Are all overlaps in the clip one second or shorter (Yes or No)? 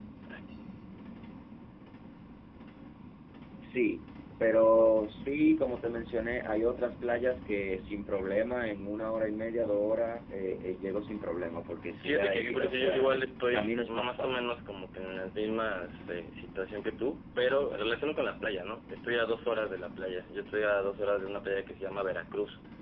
No